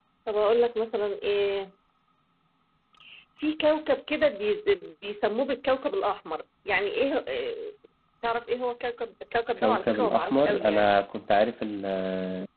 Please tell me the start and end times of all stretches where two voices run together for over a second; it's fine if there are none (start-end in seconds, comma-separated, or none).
9.6-10.9